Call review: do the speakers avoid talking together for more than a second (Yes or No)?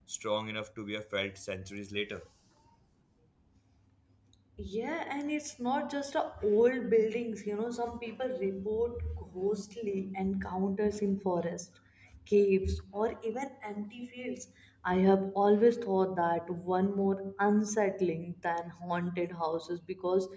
Yes